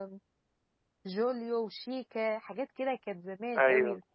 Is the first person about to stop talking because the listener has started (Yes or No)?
No